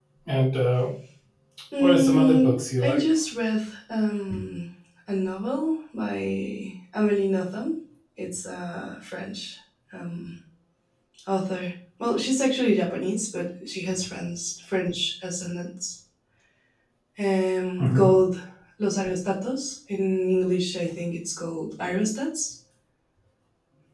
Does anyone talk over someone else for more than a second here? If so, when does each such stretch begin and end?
1.8-3.0

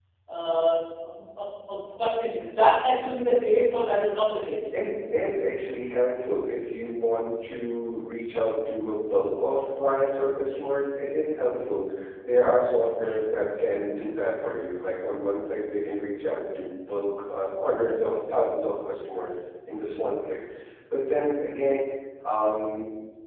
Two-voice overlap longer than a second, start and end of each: none

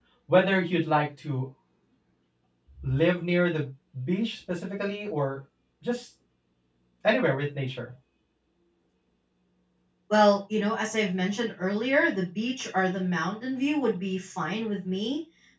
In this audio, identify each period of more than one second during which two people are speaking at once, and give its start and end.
none

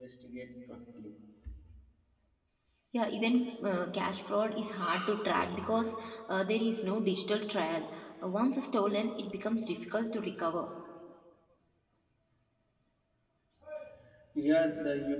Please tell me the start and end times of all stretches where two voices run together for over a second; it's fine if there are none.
none

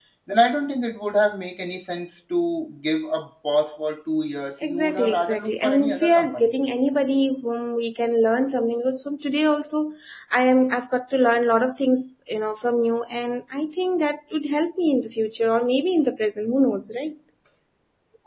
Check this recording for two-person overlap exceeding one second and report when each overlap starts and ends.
4.6-6.6

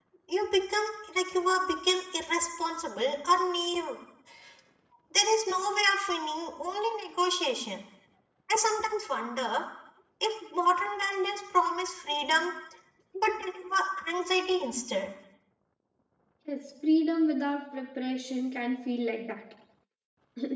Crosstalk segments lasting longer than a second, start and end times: none

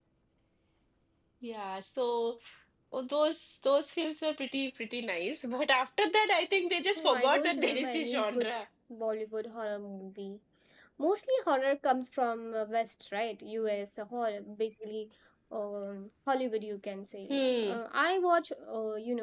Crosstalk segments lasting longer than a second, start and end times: 7.0-8.5

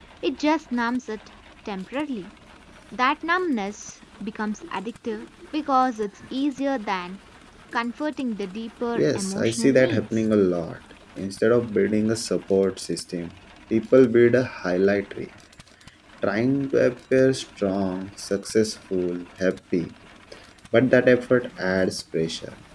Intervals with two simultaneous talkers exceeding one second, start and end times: 8.9-10.2

